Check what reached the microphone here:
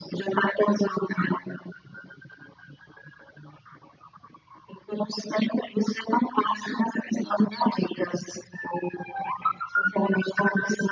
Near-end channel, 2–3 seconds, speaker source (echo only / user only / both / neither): neither